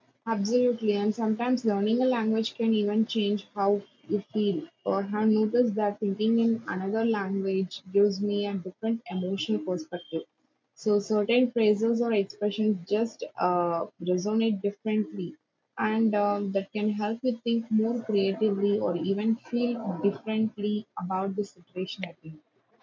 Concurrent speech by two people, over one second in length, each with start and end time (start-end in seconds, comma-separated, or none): none